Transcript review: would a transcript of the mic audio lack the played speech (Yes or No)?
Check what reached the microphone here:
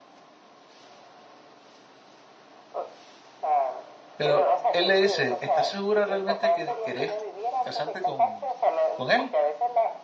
No